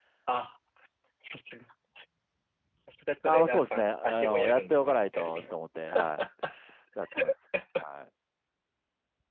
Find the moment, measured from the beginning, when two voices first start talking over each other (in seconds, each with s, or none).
3.3 s